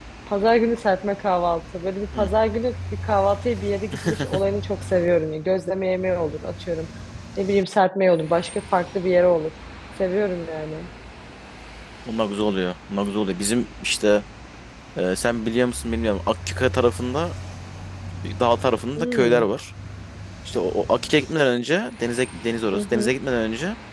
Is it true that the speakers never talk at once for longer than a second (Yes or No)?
Yes